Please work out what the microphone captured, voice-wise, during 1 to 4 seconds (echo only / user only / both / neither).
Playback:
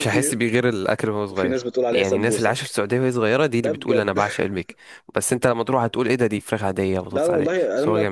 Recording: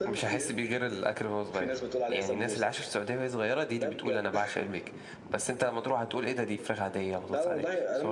echo only